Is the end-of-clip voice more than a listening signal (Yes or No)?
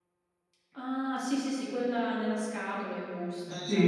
Yes